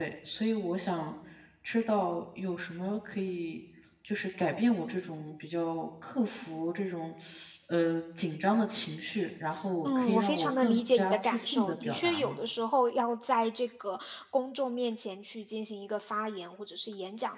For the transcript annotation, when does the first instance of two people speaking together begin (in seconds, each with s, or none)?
9.8 s